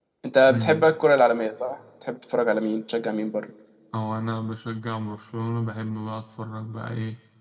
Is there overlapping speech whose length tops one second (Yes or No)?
No